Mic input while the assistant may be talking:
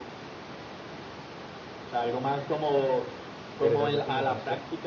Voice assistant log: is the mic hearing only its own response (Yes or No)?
No